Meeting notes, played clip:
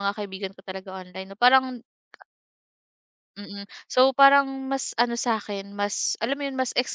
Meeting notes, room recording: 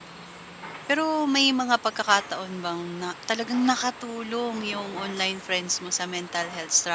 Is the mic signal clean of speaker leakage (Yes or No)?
Yes